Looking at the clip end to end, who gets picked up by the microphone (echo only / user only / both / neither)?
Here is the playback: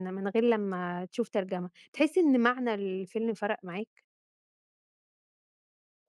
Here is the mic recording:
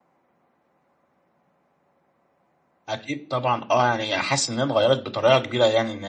user only